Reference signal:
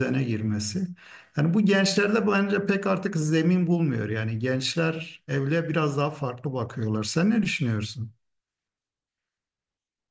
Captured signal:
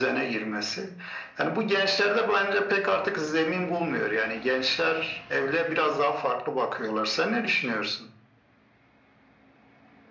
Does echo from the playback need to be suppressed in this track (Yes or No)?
Yes